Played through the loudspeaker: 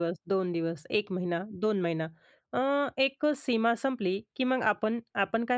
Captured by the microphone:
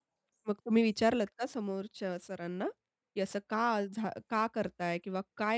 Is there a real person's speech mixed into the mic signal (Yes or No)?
Yes